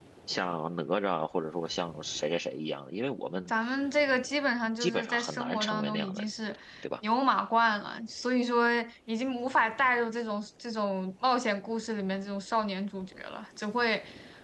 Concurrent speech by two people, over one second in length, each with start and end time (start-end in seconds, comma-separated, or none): 4.8-6.2